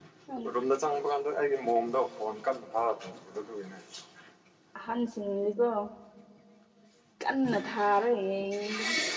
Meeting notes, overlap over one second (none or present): none